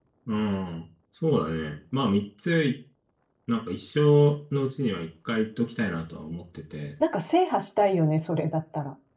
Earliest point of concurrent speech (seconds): none

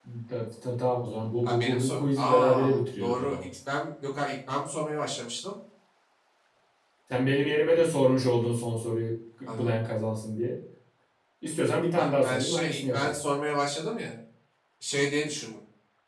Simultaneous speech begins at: 1.4 s

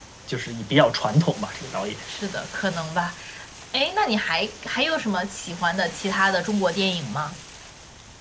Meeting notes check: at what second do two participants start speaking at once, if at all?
none

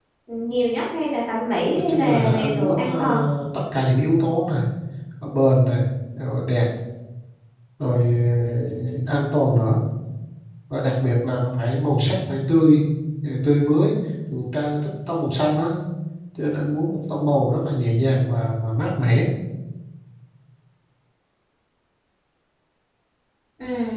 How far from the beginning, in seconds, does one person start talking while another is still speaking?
1.8 s

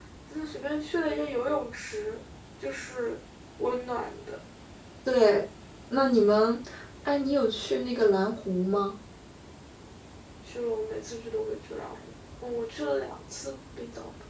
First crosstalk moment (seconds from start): none

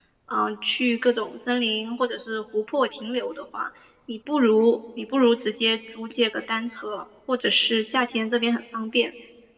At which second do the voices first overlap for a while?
none

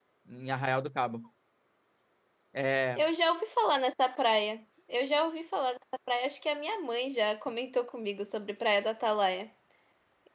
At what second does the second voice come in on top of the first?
none

